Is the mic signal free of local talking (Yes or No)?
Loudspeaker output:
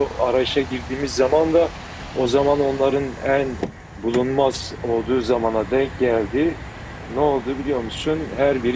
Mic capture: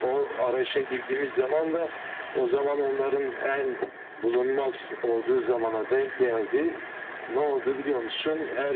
Yes